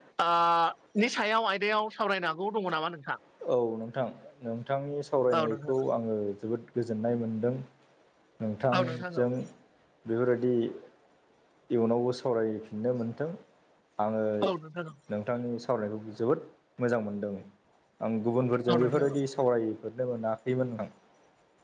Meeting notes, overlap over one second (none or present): none